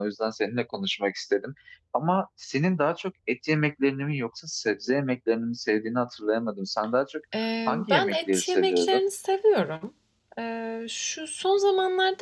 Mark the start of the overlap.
7.7 s

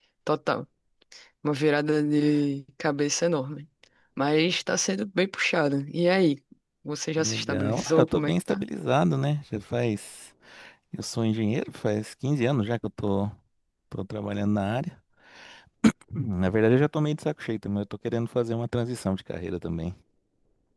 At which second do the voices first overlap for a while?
7.2 s

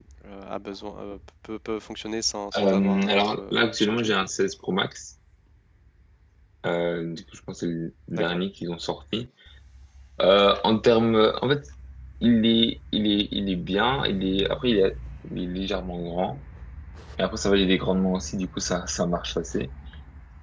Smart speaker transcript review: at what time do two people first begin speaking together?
2.5 s

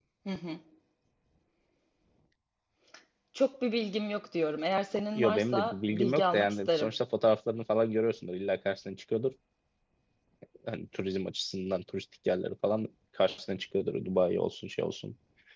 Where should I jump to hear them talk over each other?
5.2 s

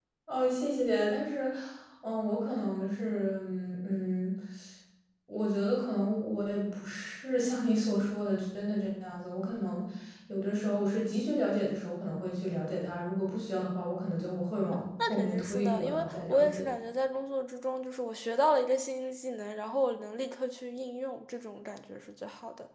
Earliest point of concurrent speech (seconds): 15.0 s

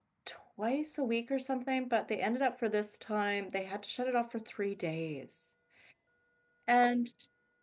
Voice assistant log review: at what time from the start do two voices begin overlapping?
none

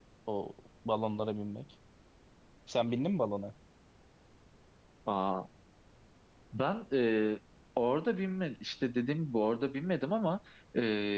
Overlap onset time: none

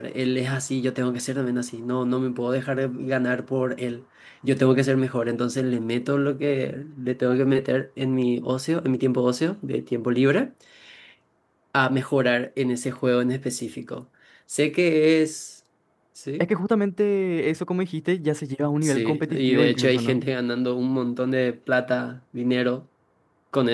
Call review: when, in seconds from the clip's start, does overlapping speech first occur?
18.8 s

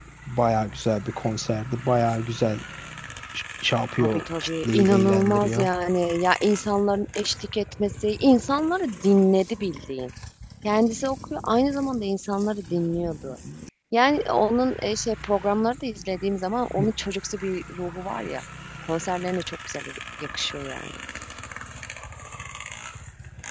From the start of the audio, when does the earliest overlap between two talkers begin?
4.0 s

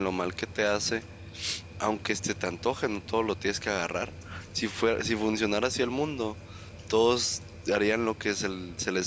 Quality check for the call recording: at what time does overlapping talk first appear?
none

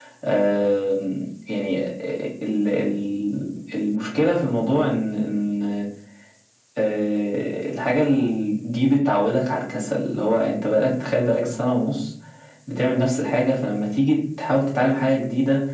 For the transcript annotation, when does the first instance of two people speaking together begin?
none

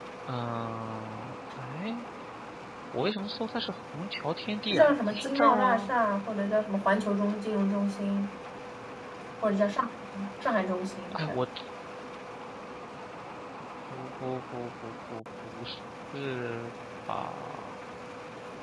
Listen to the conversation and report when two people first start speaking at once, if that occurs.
4.7 s

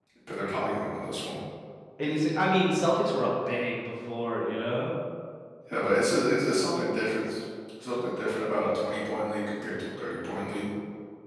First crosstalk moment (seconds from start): none

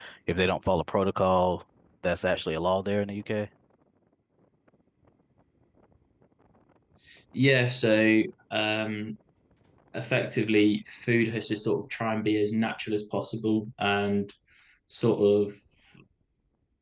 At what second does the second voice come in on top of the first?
none

